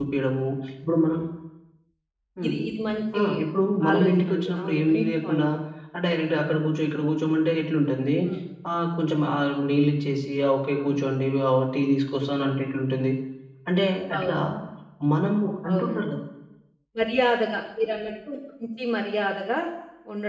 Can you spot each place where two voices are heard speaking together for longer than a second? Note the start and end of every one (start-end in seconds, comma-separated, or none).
3.9-5.5